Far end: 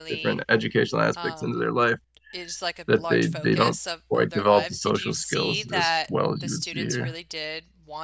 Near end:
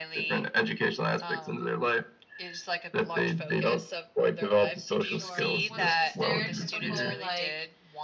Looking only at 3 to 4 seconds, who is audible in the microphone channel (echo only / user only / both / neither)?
echo only